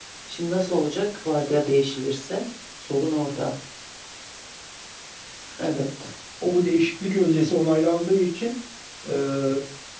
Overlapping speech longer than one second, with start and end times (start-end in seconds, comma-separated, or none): none